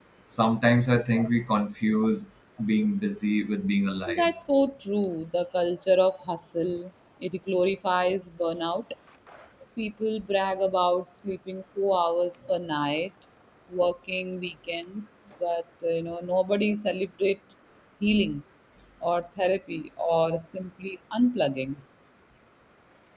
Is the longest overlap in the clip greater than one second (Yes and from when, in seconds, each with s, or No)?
No